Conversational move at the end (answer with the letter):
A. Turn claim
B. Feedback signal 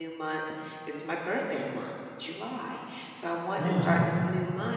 B